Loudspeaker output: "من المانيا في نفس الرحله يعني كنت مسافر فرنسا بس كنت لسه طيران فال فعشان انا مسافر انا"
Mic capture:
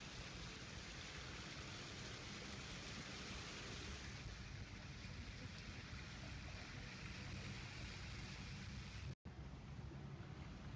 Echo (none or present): none